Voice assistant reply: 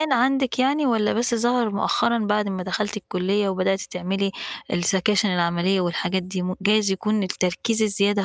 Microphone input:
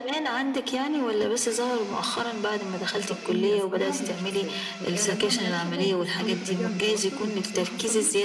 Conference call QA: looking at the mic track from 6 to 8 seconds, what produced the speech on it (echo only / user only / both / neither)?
both